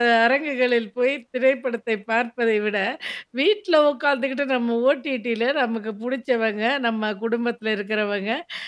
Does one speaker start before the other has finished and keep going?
No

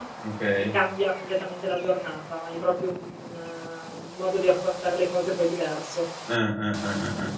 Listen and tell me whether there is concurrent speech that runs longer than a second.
No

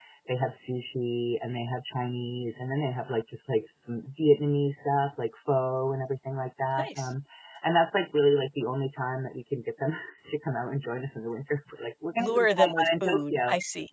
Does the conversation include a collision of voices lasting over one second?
Yes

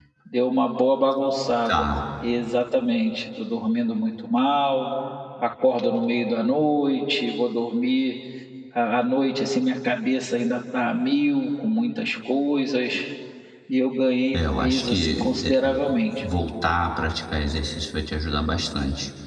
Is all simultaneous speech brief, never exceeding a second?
No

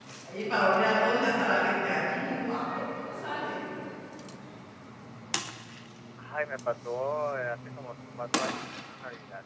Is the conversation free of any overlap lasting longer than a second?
Yes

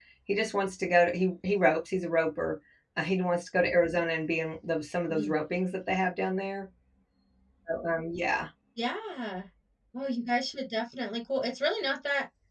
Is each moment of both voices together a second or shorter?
Yes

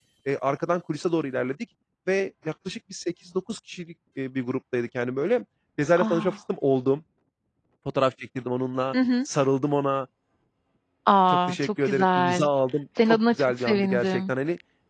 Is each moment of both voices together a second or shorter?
No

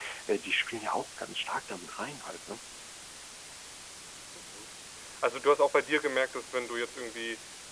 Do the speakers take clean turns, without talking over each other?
Yes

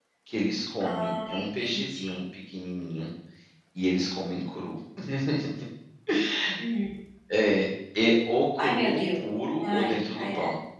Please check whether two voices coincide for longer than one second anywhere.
Yes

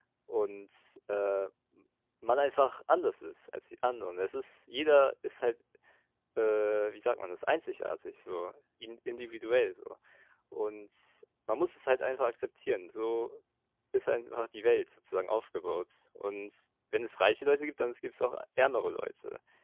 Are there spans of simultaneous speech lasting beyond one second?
No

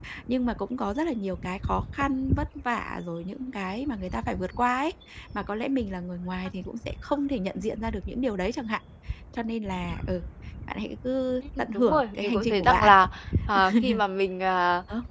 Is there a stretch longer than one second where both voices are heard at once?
Yes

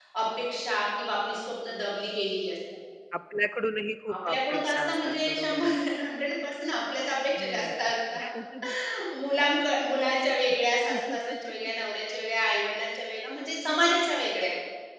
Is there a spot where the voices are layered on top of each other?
Yes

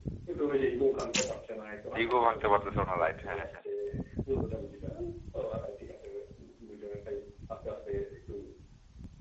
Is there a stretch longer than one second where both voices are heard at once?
Yes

